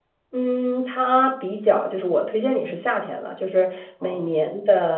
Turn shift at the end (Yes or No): No